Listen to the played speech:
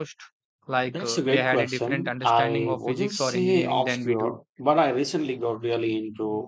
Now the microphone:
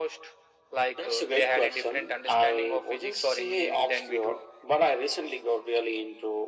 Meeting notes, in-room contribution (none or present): none